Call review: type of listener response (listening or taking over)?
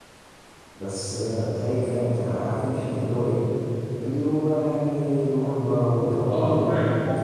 taking over